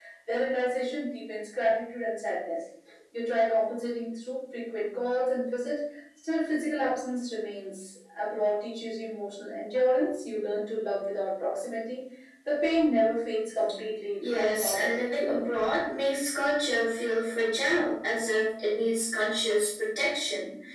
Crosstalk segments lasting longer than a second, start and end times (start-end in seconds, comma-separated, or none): 14.2-15.5